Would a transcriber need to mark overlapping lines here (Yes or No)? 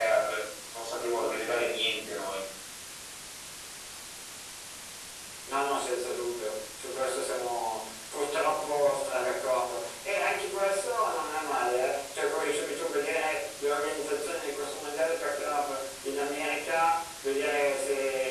No